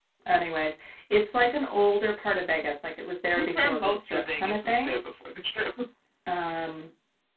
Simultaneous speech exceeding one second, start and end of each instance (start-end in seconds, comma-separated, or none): 3.4-5.0